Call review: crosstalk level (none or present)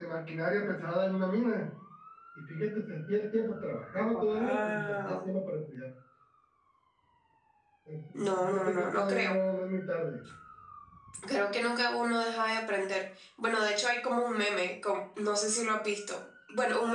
present